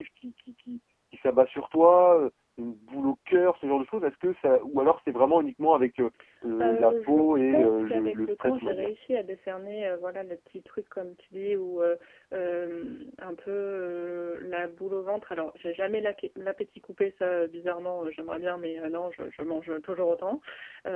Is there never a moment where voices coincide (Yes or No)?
No